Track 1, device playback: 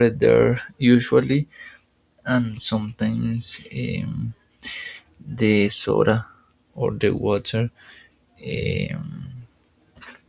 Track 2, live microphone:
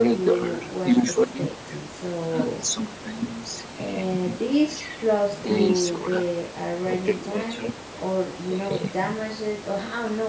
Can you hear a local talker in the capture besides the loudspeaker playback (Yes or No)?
Yes